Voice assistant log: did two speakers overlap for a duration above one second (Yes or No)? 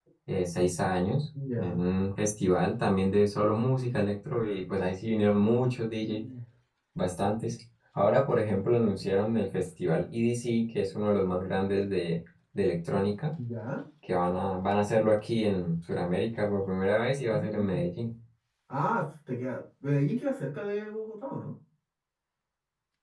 No